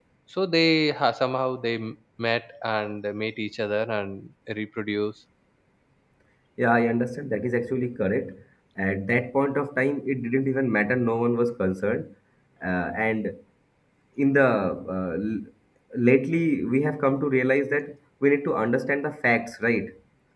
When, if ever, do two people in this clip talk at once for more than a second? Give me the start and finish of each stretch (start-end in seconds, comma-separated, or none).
none